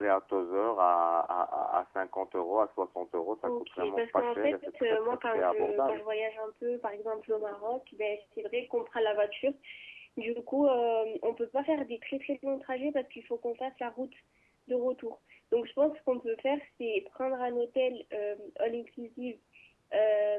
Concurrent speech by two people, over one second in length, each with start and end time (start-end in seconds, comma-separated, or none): 3.4-6.0